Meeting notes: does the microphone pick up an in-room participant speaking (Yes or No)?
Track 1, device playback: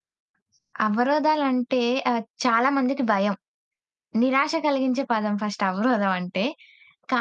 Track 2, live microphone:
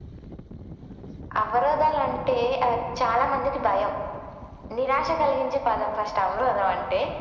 No